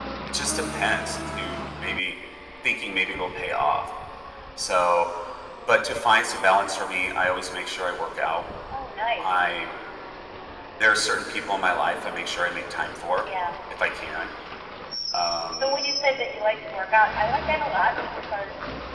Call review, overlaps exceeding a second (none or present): none